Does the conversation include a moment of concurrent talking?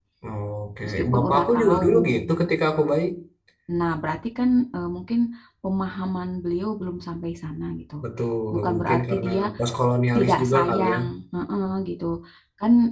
Yes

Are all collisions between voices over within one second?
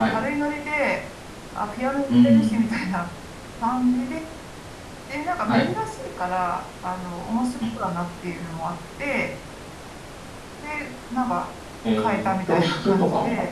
No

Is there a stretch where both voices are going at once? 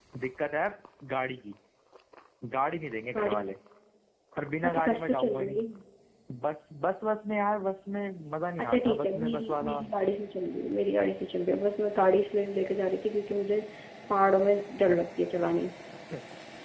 Yes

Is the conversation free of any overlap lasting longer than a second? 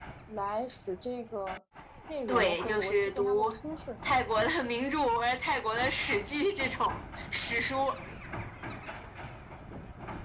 No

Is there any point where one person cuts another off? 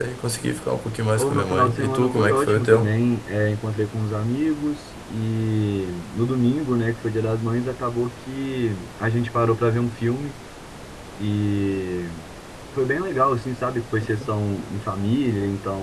Yes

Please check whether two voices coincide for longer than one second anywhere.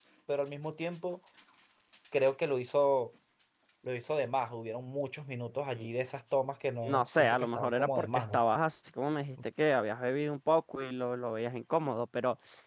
Yes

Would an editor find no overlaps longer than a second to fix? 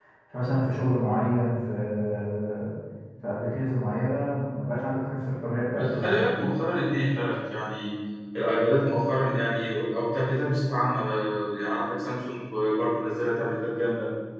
Yes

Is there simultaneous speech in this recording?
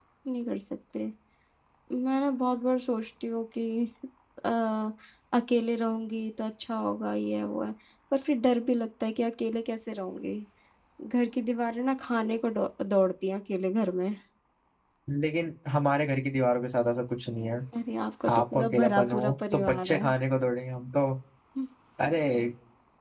Yes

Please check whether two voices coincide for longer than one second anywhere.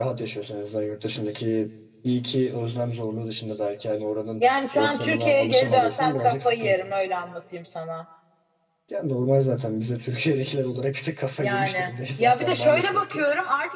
Yes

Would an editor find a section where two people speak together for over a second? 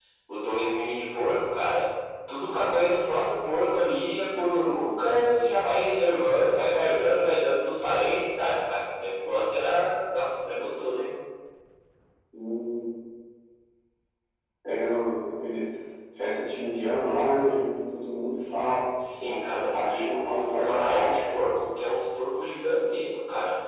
Yes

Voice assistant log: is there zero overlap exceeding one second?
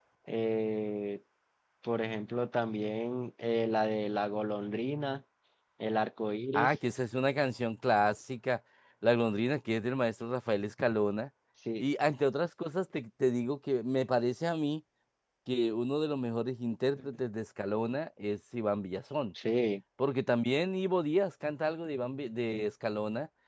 Yes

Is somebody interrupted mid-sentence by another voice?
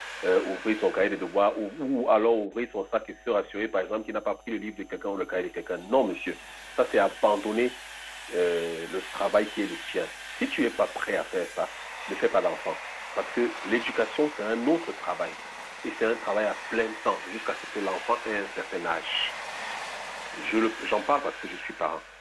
No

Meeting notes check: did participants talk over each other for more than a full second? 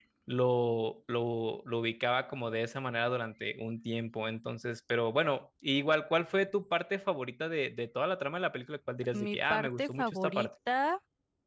Yes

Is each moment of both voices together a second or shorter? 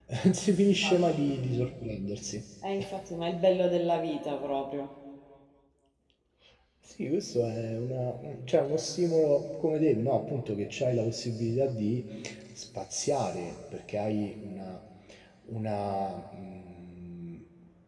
Yes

